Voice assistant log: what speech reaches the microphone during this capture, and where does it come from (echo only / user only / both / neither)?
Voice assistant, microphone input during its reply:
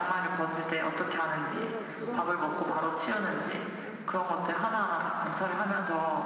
both